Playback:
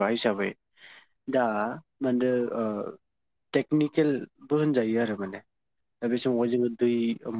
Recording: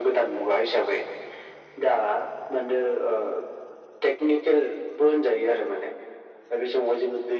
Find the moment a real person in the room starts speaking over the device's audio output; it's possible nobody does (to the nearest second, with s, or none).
none